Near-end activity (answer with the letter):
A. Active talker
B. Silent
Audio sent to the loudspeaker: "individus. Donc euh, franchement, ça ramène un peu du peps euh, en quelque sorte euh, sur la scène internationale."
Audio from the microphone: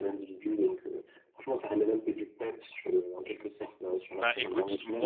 A